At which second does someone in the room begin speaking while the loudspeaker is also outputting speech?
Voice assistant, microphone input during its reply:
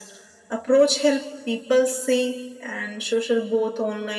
none

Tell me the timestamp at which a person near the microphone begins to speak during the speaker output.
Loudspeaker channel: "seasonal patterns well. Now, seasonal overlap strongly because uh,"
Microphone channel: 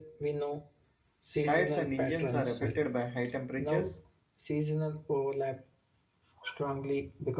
1.4 s

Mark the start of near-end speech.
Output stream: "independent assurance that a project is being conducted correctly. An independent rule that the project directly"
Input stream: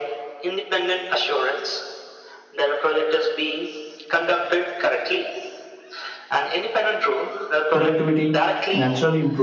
7.7 s

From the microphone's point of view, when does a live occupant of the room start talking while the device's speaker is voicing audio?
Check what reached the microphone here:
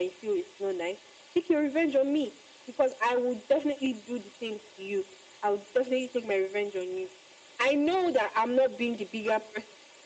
none

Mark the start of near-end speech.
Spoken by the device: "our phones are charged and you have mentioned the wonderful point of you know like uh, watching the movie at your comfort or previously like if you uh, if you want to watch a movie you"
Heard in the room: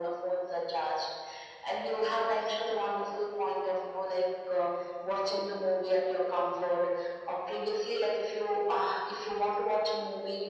none

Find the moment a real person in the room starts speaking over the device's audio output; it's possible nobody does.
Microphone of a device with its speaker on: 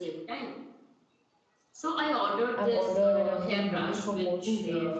2.6 s

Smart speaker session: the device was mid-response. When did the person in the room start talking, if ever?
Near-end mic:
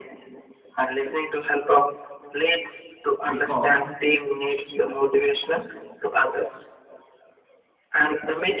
3.3 s

